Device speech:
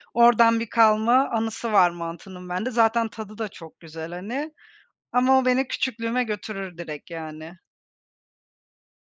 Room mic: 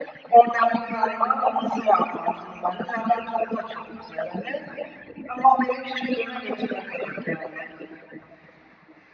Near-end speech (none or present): none